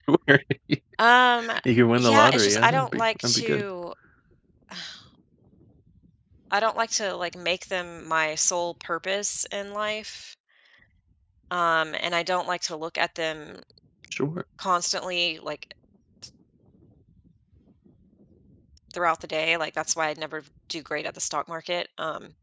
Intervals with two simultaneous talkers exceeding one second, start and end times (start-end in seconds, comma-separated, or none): 2.0-3.6